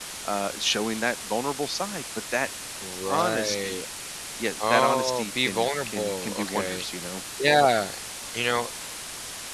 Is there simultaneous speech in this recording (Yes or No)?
Yes